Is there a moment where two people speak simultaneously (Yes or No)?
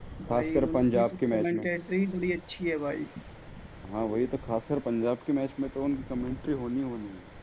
Yes